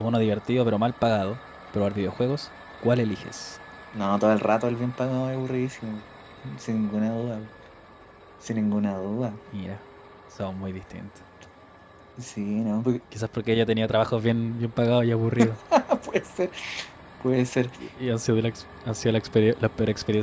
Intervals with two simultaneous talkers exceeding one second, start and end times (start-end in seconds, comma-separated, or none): none